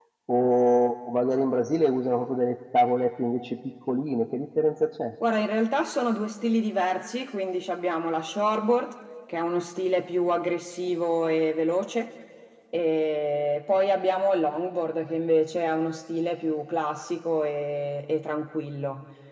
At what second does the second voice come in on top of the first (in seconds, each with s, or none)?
none